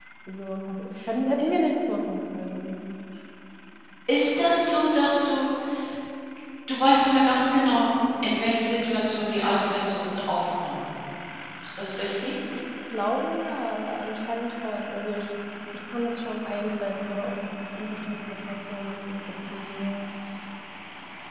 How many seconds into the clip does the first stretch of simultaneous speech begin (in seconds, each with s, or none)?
none